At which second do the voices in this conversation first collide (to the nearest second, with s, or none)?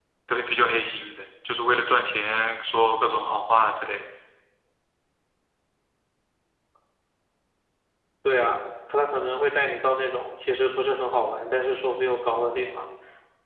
none